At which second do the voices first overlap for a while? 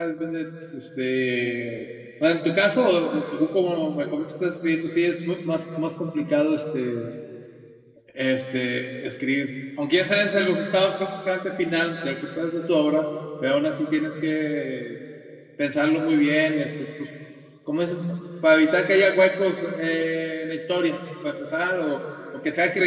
none

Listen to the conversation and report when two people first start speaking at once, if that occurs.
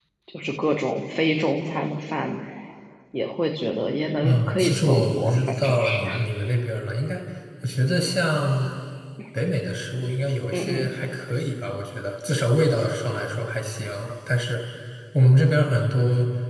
4.2 s

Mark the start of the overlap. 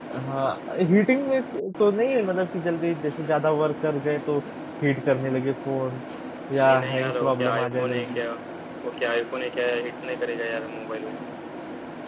6.6 s

